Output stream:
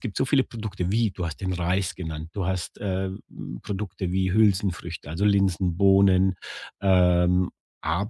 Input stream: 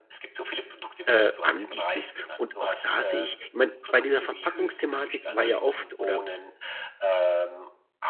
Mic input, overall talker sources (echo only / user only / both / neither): both